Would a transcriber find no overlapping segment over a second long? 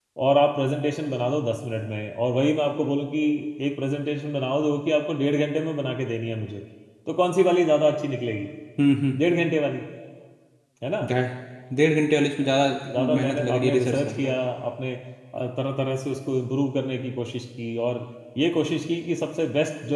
No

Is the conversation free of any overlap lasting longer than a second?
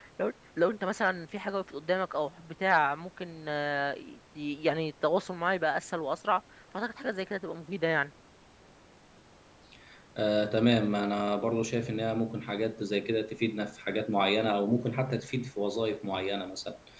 Yes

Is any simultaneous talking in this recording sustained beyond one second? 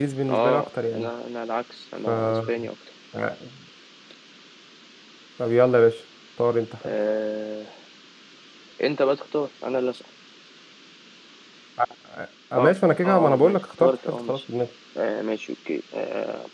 Yes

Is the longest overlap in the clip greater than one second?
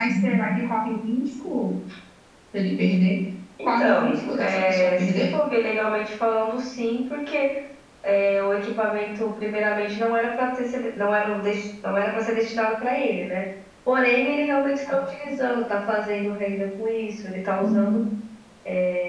Yes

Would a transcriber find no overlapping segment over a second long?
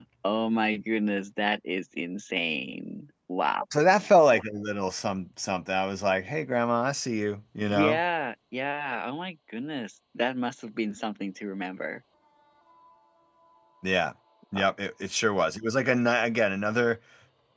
Yes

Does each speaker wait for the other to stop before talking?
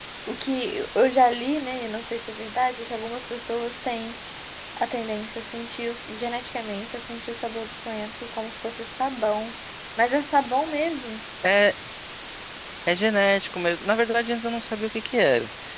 Yes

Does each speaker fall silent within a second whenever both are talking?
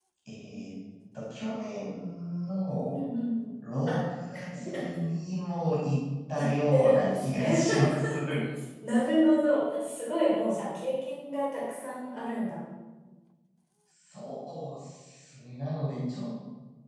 No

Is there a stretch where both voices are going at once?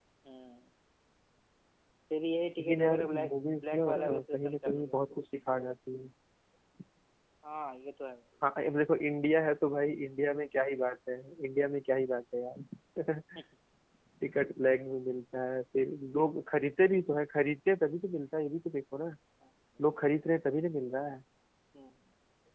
Yes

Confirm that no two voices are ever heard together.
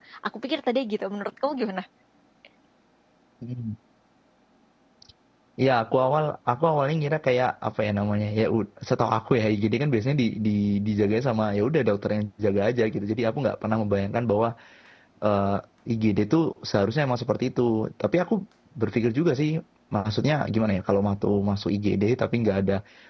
Yes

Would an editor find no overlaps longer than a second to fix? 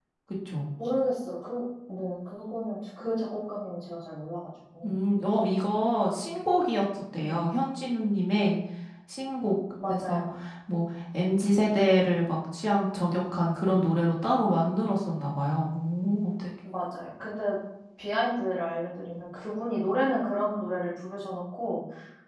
Yes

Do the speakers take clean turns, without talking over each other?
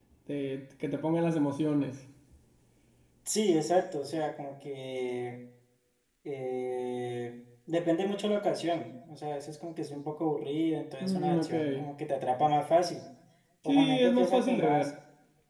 No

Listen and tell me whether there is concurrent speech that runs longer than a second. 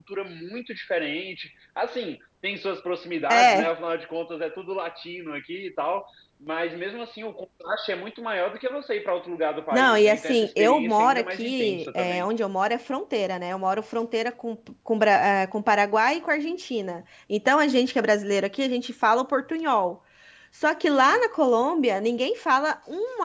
Yes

